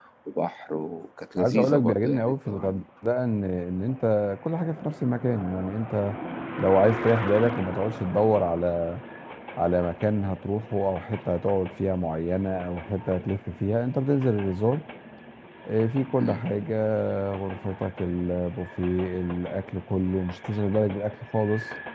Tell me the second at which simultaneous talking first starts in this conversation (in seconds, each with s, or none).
1.4 s